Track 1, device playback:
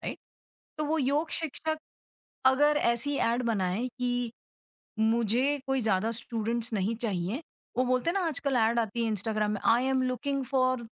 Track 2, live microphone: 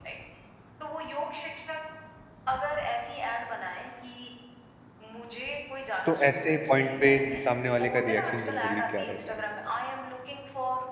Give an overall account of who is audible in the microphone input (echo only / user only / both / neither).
both